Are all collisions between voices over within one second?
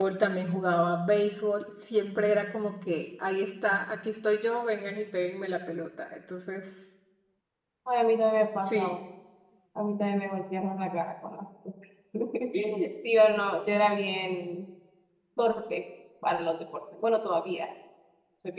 Yes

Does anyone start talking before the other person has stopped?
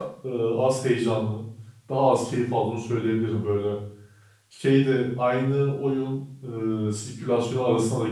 No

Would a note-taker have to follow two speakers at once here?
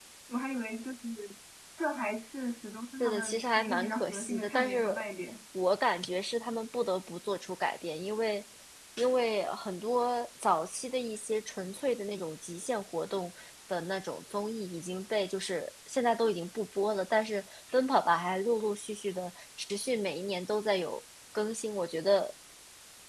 Yes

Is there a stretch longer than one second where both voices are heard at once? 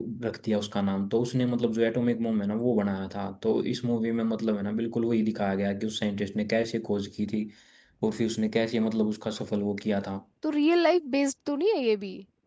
No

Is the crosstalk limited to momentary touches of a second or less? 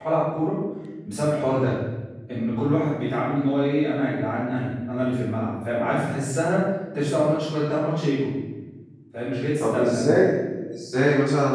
Yes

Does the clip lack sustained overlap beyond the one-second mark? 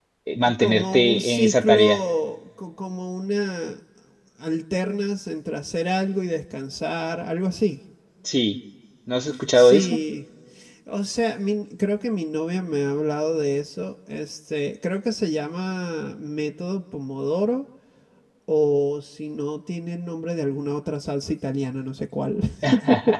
No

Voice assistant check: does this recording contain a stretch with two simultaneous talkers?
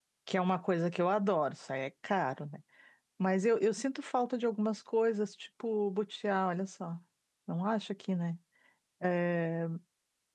No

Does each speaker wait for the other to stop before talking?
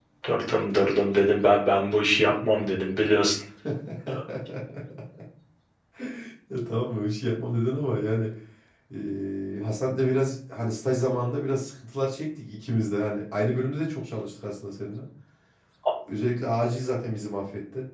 Yes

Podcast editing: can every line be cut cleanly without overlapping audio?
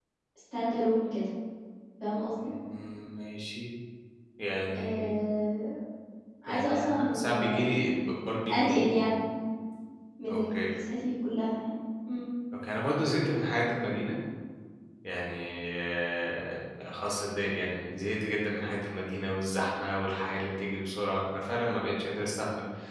No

